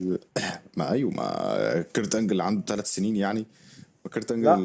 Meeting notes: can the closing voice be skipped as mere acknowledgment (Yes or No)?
Yes